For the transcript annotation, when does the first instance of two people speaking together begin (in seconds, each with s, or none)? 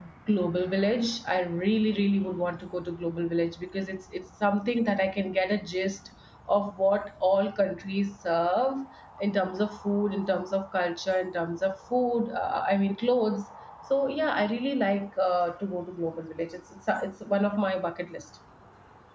none